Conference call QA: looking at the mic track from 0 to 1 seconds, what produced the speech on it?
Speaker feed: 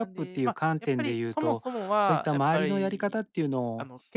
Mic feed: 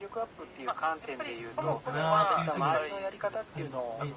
echo only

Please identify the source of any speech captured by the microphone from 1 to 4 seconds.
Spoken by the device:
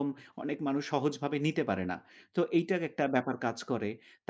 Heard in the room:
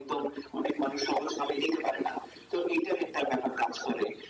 echo only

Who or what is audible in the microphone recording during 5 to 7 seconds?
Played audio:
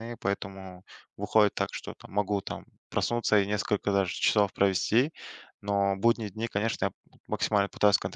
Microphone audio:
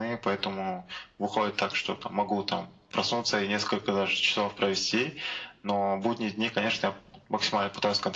echo only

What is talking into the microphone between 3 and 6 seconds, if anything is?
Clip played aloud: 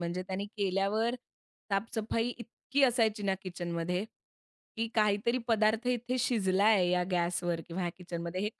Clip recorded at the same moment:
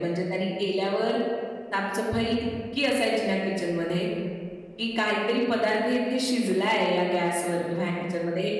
echo only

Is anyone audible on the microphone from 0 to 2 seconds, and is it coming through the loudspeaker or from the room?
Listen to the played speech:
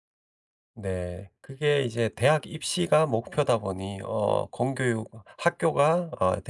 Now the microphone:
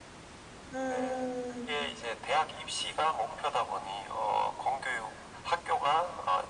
both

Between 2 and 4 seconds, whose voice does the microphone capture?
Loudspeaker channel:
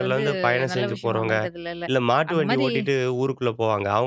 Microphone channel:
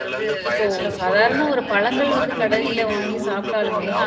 both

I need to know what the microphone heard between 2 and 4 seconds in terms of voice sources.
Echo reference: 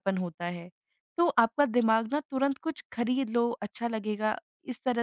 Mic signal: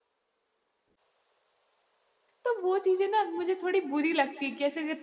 user only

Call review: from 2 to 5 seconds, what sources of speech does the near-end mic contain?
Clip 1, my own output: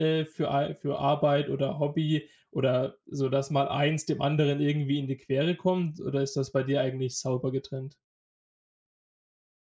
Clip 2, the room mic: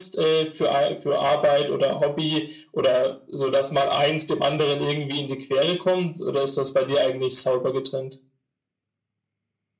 echo only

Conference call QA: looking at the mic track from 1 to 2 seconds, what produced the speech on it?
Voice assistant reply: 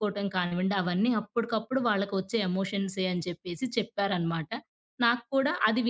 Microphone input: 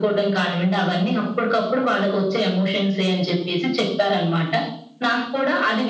echo only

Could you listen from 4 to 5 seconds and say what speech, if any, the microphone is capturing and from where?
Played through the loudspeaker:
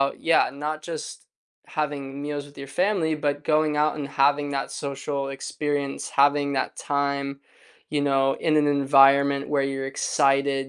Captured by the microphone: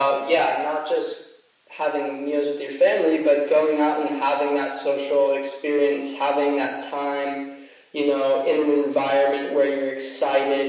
echo only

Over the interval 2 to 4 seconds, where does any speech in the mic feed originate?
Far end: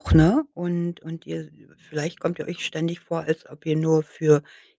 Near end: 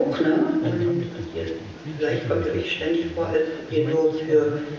both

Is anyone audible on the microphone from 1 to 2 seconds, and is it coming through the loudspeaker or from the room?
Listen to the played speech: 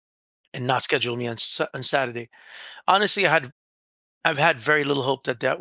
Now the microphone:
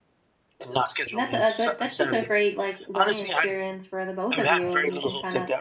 both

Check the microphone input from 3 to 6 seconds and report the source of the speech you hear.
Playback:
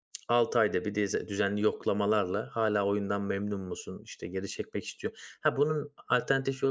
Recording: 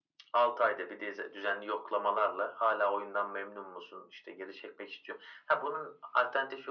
echo only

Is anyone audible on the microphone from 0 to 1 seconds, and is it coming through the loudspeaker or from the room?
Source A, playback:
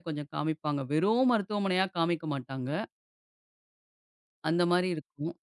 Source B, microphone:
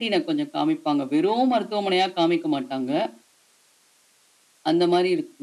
echo only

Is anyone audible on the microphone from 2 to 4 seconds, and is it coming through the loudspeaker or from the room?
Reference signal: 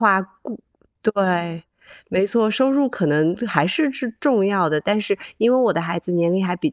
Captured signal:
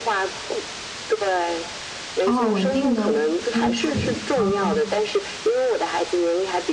both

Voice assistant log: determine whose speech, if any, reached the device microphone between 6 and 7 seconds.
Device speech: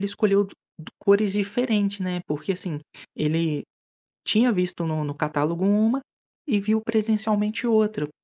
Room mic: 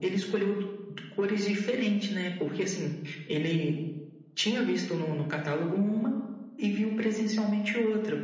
echo only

